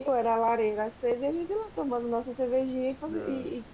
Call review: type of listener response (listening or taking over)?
listening